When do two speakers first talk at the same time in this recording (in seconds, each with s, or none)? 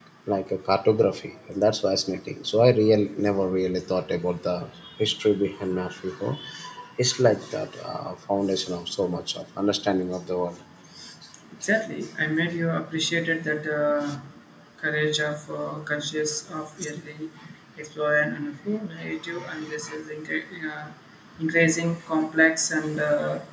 none